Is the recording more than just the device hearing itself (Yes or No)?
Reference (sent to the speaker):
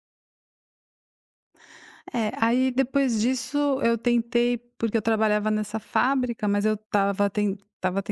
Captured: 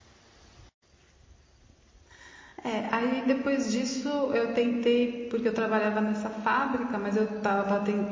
No